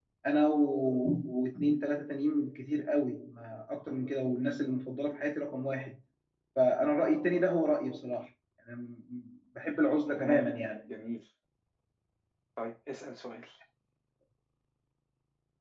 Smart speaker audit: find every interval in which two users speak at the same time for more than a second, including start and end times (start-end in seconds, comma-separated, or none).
none